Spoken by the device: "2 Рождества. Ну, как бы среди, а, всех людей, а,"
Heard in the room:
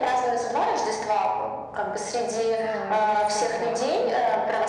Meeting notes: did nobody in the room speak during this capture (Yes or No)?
No